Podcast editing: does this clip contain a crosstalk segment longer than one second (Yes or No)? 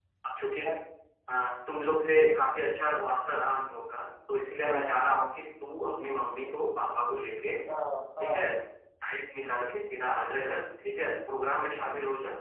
No